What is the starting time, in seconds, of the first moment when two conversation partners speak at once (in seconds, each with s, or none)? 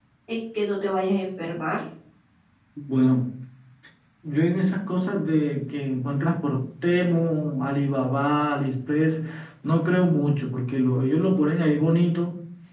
none